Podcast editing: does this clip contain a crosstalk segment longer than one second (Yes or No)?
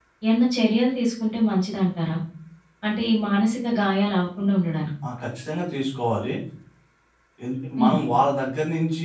No